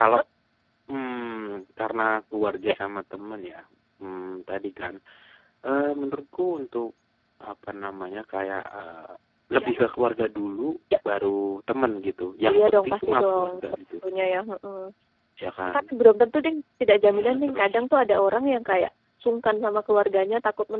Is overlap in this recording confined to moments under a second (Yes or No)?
No